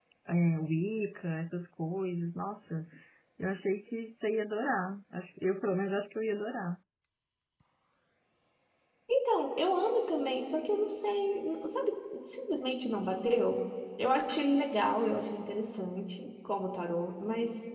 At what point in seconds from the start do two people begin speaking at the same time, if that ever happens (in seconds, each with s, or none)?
none